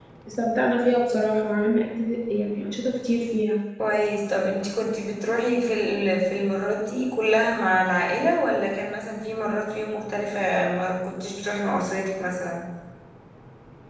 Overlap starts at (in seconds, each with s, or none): none